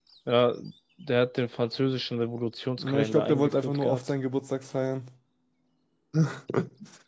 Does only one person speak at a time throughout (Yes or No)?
No